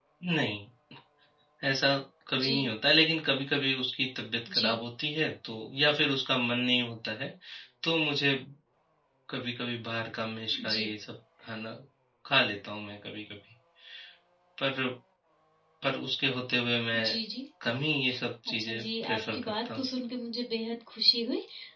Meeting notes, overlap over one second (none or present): present